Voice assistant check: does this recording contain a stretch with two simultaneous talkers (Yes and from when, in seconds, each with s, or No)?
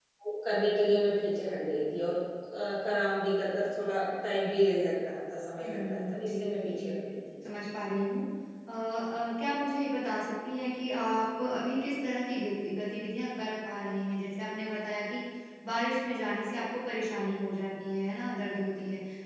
Yes, from 5.6 s